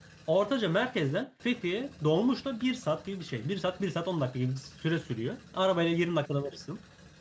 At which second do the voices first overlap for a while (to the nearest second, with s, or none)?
none